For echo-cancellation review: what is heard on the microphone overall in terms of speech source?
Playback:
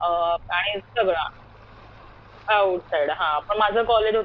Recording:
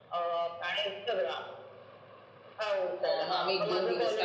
both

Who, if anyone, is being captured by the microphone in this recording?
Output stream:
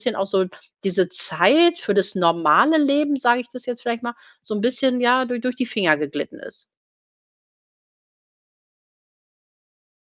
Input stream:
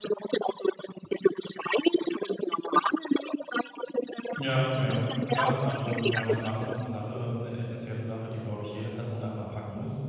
both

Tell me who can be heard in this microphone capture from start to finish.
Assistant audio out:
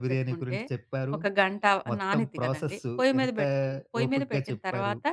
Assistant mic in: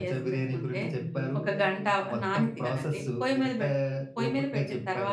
both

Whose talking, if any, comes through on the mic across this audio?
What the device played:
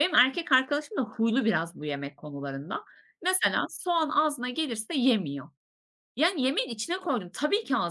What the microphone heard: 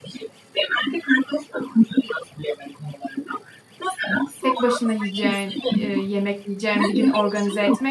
both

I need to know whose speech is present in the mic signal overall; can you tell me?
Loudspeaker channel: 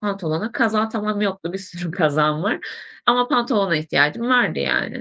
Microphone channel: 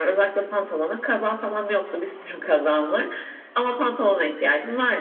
echo only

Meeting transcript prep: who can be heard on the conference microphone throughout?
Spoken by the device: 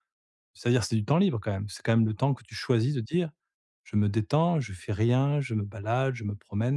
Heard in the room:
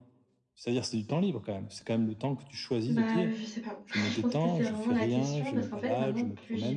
both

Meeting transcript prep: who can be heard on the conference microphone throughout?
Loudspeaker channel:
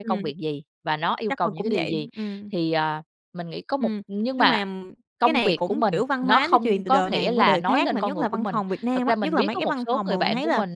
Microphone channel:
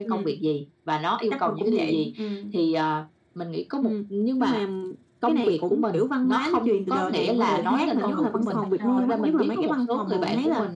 both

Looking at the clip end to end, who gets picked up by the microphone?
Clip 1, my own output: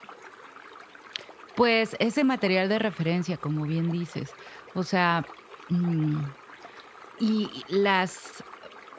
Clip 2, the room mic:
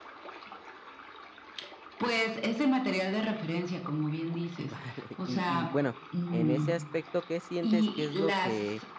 both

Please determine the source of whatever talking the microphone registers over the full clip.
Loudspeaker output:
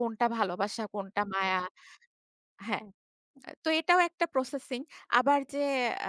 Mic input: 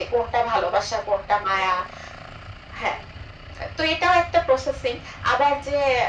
echo only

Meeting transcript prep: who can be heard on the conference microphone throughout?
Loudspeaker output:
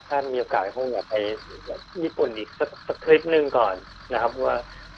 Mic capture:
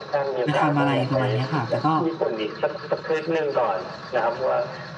both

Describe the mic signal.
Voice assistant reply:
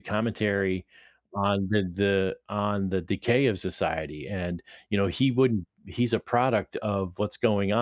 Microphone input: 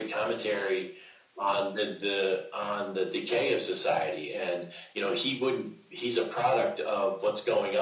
echo only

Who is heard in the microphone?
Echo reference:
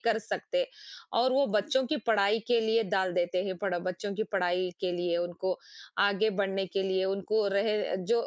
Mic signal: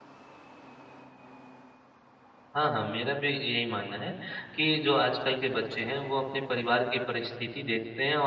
user only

